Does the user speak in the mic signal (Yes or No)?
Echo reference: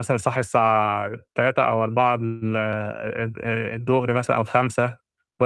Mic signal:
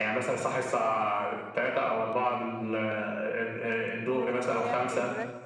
Yes